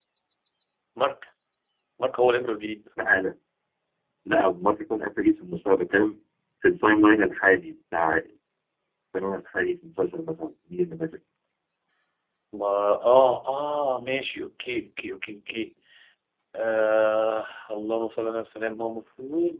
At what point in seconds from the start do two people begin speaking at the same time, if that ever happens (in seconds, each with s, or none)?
none